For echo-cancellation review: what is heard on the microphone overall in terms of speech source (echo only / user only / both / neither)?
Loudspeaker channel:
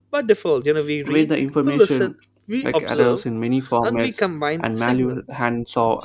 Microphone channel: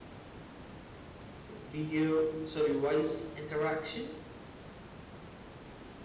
user only